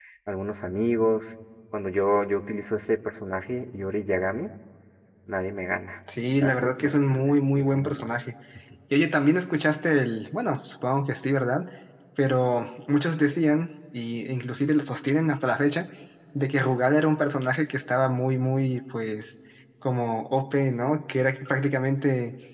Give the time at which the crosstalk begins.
6.4 s

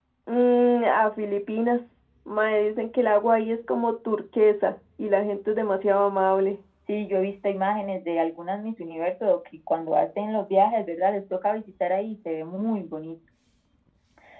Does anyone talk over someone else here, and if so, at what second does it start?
none

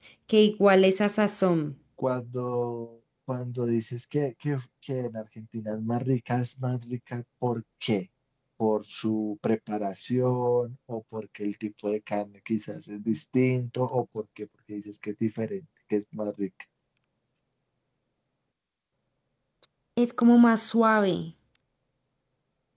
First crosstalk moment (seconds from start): none

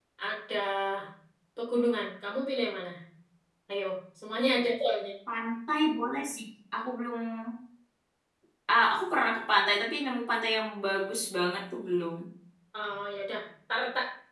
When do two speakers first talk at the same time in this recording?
none

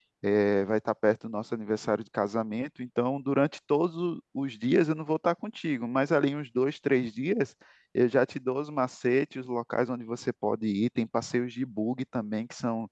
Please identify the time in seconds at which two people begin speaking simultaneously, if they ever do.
none

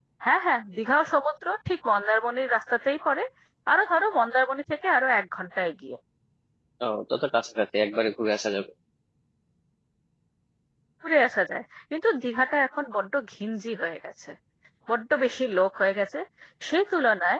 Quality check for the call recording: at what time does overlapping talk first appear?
none

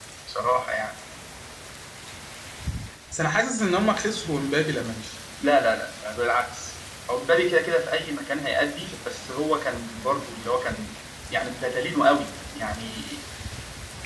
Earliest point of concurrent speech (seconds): none

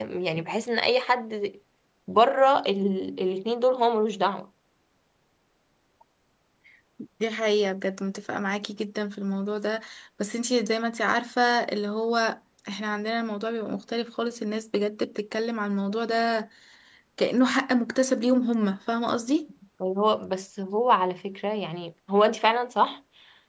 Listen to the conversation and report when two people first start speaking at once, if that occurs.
none

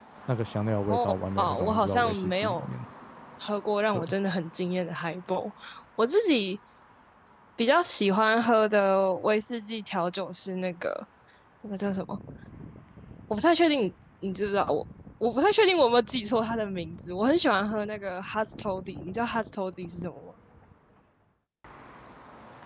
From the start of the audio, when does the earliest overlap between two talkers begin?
0.9 s

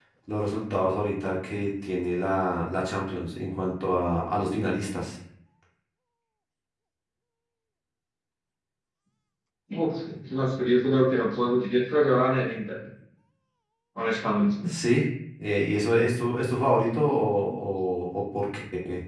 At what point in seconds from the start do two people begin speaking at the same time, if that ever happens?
none

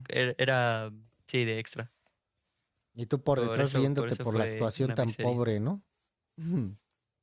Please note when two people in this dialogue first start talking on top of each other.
3.4 s

